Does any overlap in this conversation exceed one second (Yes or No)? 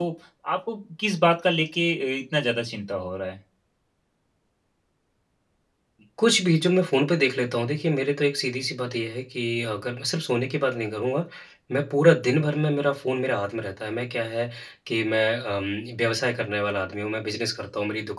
No